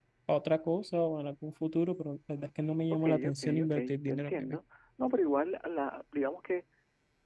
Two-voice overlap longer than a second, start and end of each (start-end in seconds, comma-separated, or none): 3.0-4.6